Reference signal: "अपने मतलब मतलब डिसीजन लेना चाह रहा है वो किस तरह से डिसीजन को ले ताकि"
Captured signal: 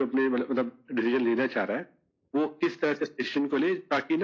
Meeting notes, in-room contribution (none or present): none